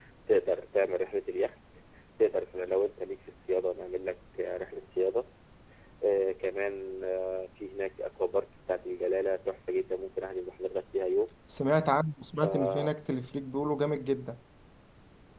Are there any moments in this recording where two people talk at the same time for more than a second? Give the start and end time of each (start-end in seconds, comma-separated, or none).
none